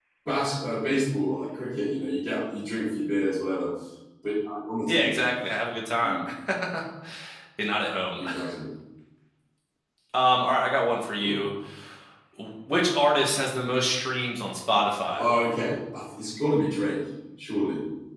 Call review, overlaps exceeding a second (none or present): none